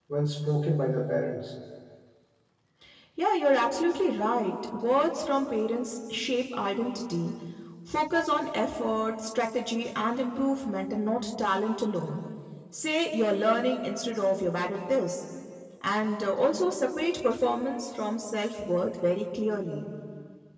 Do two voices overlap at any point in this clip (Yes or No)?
No